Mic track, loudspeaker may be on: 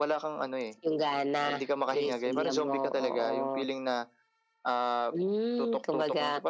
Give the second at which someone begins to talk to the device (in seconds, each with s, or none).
none